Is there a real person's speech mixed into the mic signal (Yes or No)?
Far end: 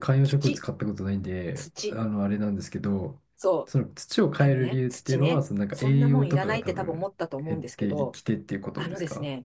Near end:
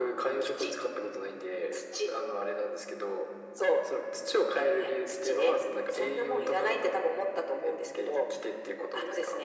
No